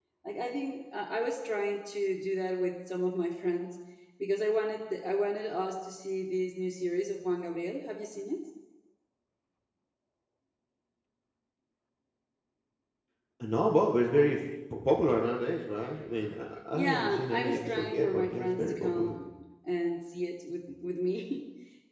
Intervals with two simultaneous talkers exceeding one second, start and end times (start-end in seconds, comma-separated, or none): 16.8-19.1